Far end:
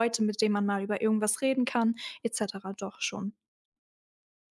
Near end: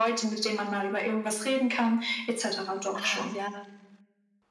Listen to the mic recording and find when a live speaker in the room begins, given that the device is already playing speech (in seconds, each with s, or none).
2.9 s